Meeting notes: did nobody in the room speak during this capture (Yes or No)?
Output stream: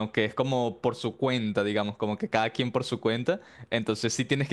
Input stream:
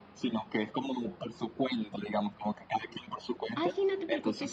No